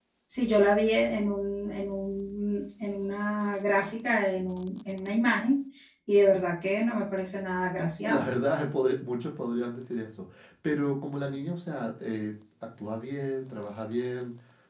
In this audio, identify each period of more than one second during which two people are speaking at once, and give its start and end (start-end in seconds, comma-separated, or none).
none